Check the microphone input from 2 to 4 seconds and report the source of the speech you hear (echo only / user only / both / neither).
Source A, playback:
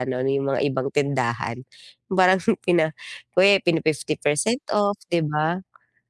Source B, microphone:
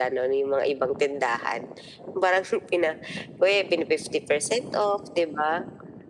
echo only